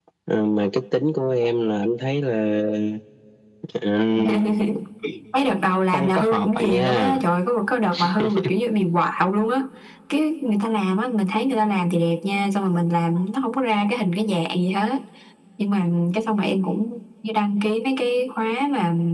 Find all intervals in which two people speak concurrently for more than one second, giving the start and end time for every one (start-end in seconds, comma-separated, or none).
5.9-7.2